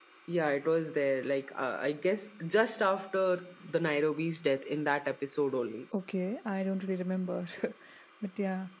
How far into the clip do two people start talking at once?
none

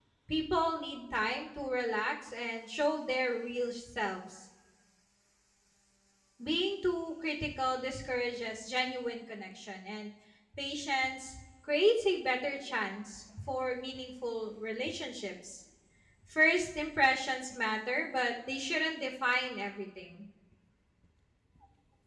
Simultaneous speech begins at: none

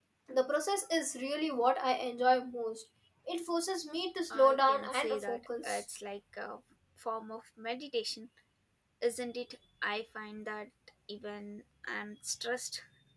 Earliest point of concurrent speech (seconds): 4.3 s

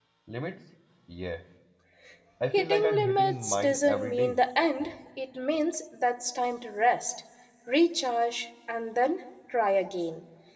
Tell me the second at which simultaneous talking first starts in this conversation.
2.5 s

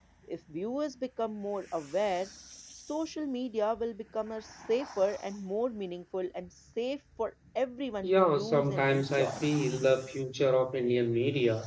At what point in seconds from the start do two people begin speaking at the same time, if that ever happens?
8.0 s

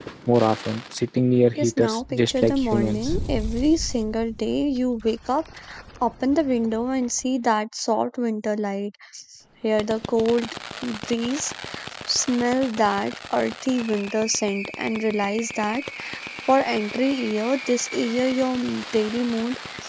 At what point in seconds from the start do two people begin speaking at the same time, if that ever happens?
1.6 s

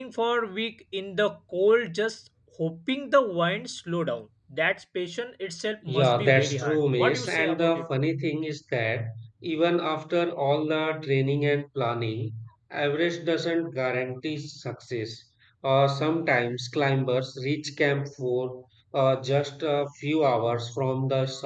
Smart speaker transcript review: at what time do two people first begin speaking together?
5.9 s

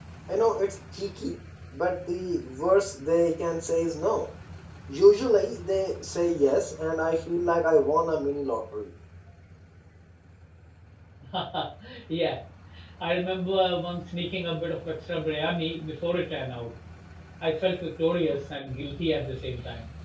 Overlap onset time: none

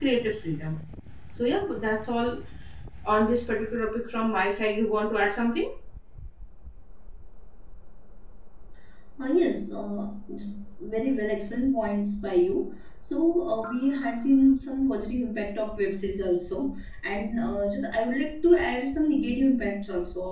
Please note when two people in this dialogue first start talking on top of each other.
none

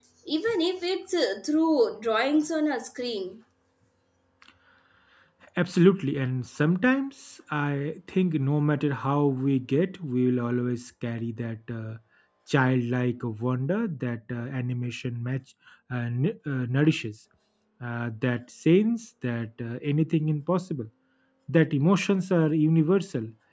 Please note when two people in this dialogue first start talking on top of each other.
none

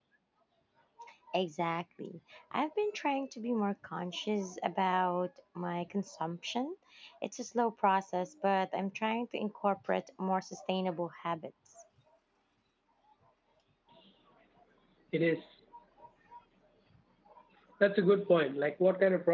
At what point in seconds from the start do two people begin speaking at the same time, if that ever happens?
none

